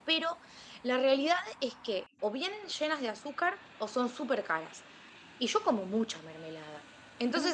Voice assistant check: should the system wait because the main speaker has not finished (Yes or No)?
Yes